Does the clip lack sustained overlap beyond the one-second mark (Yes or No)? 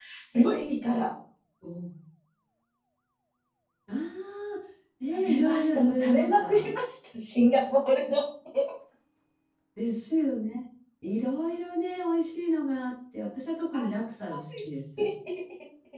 No